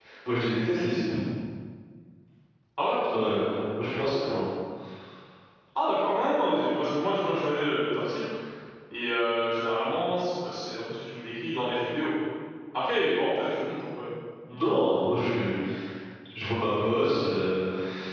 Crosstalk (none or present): none